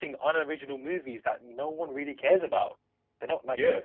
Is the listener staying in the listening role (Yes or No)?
No